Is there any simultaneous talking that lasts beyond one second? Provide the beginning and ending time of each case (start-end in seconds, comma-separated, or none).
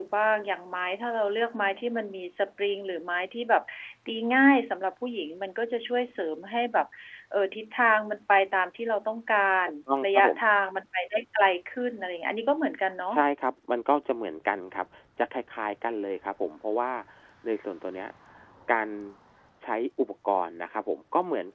none